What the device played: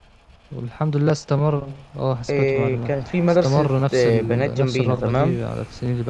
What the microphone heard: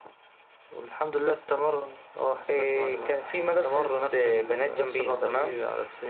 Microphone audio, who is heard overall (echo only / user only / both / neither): echo only